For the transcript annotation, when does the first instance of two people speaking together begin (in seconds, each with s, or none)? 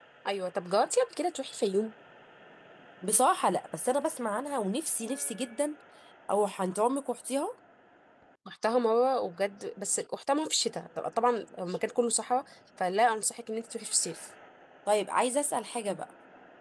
none